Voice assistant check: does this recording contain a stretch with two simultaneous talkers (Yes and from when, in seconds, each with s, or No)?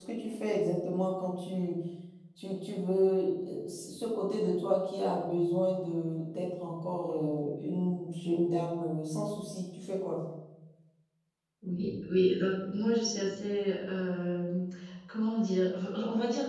No